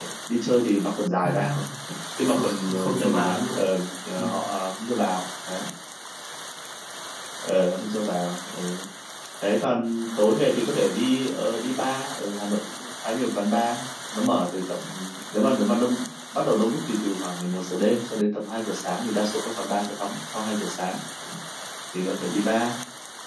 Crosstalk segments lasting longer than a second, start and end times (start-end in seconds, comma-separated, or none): 2.3-3.6